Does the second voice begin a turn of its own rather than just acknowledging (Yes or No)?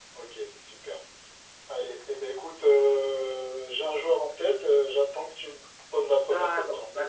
Yes